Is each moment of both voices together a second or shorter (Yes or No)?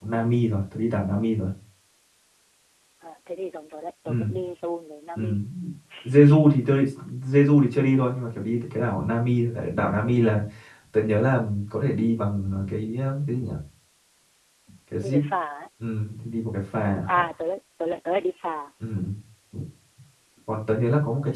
Yes